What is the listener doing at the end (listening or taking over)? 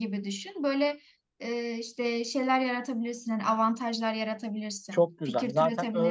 taking over